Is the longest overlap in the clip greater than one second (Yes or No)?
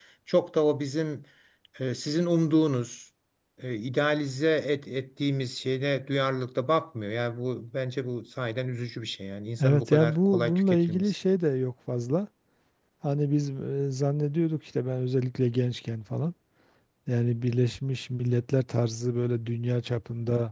Yes